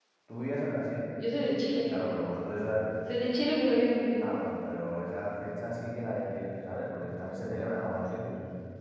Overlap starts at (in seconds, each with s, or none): none